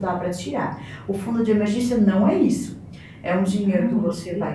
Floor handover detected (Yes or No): No